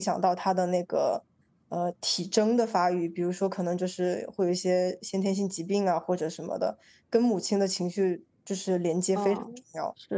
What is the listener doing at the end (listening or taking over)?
taking over